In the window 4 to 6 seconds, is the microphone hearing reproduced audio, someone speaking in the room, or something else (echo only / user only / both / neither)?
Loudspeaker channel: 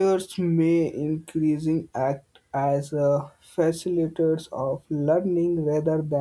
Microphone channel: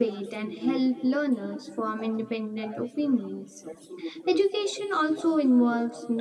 both